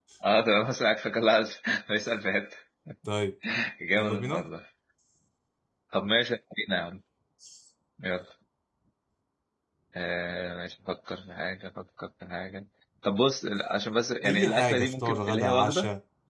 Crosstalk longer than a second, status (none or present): present